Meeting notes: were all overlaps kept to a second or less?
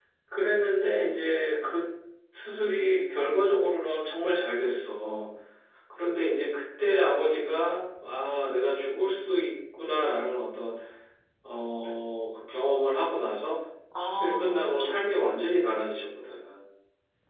No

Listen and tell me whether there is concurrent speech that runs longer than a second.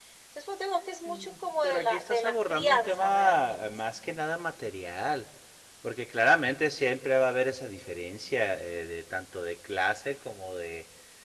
Yes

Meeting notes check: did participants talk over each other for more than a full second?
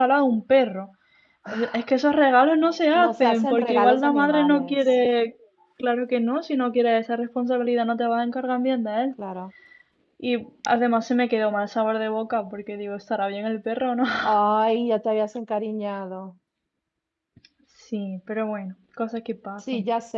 Yes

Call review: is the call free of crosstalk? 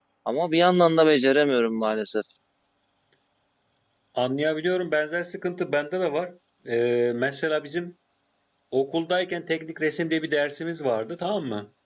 Yes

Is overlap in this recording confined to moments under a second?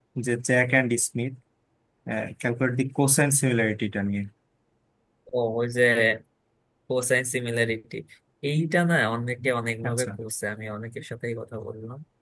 Yes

